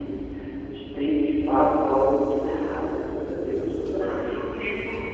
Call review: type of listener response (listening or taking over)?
taking over